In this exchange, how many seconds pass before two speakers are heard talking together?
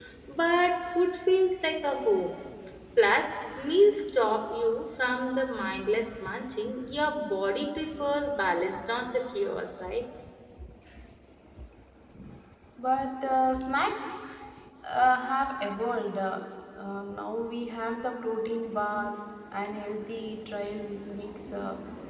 none

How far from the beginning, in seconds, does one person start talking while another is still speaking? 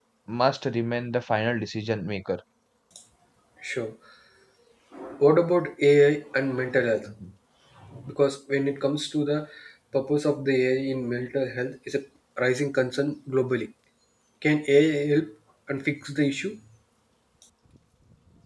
none

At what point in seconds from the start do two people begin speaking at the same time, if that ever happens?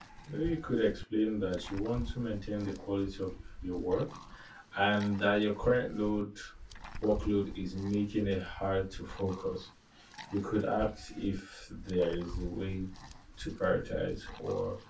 none

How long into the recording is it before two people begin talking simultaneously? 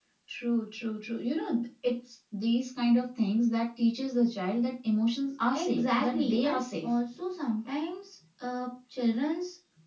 5.5 s

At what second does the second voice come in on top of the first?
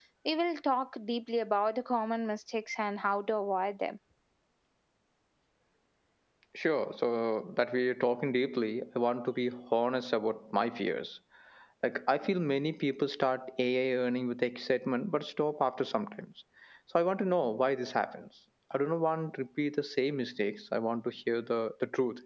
none

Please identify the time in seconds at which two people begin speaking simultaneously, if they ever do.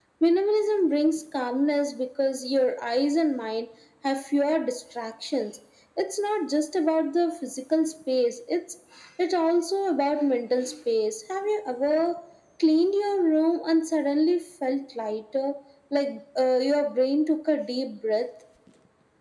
none

